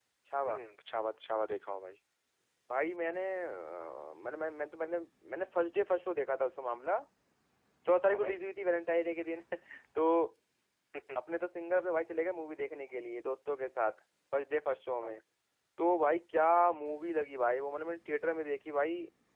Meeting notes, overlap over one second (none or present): none